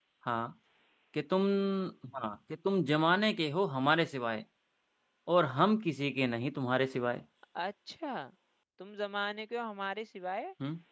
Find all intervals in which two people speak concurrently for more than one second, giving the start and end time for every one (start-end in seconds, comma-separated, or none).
none